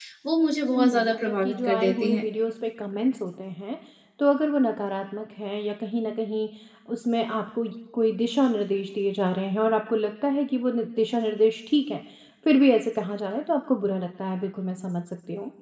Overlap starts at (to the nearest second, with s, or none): 1 s